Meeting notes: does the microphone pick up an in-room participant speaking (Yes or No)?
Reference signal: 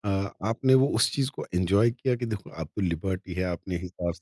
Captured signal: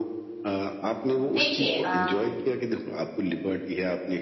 Yes